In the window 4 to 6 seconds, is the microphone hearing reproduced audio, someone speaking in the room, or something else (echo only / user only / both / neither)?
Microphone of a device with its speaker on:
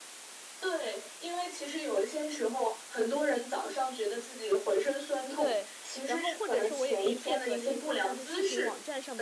both